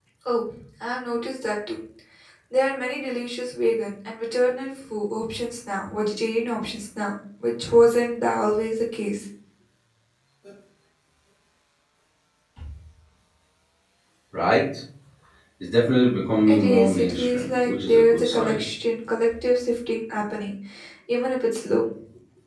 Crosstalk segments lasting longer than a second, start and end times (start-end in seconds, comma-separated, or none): 16.5-18.6